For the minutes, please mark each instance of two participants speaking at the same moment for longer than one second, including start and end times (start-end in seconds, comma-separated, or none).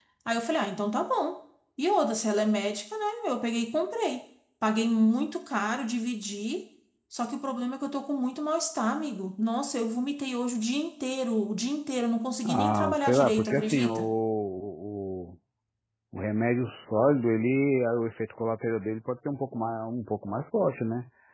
12.4-14.1